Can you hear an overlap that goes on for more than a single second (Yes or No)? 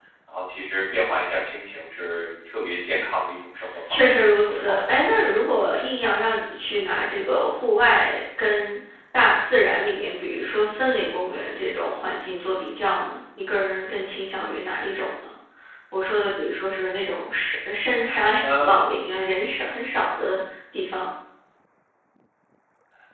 Yes